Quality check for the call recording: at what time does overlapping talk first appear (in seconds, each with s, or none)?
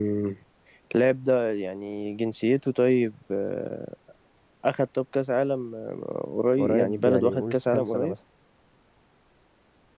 6.5 s